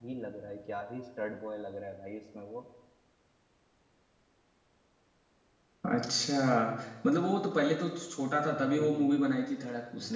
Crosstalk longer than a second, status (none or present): none